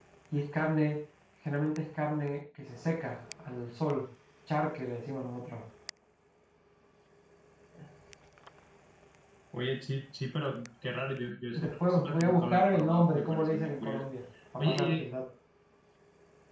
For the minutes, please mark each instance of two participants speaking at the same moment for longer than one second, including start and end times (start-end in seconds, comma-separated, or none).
11.5-14.0